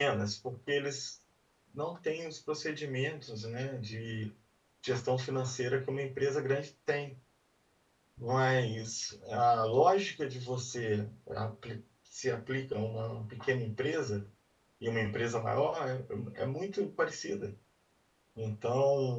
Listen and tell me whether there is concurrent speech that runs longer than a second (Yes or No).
No